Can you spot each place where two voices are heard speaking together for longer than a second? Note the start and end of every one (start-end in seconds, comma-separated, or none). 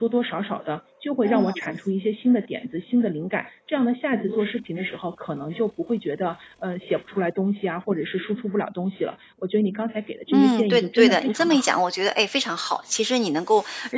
10.3-11.8